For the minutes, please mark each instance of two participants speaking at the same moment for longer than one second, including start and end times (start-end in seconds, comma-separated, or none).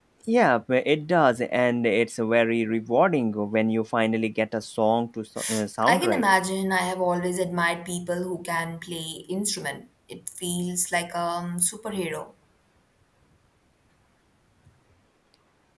none